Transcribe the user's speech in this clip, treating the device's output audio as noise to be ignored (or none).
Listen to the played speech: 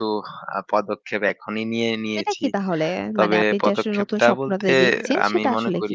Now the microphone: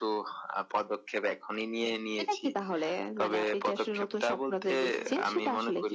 none